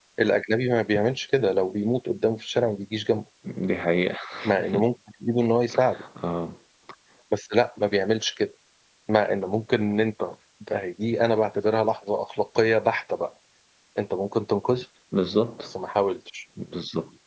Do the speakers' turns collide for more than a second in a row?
No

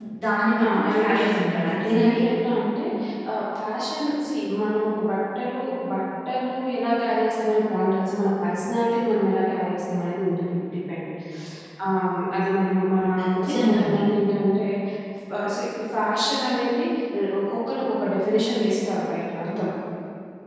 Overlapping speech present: Yes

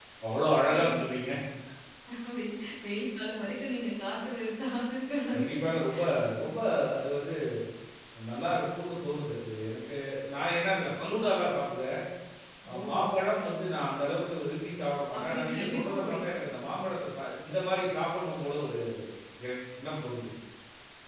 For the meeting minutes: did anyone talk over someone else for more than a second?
Yes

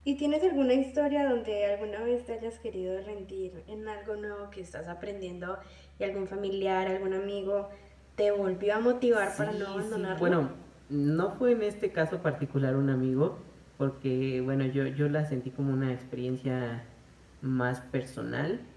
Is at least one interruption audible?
Yes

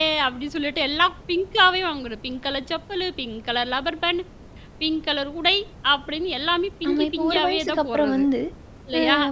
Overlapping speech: Yes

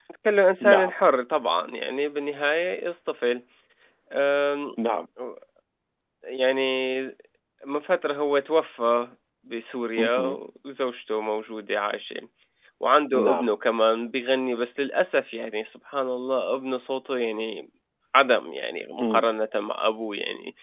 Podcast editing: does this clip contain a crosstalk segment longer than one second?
No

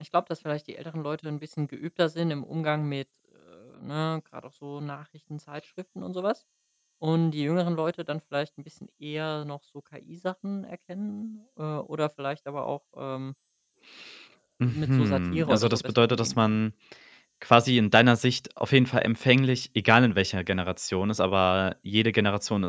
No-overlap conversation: No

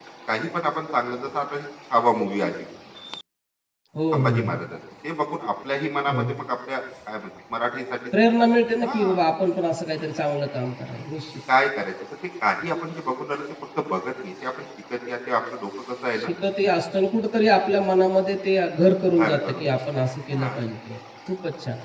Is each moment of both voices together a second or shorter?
Yes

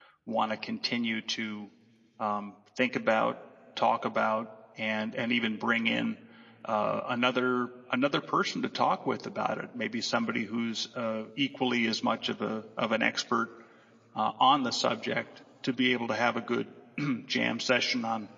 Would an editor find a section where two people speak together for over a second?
No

